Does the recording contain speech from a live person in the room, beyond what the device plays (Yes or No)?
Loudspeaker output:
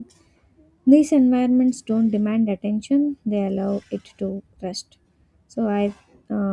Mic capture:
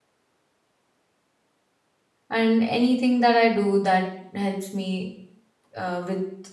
Yes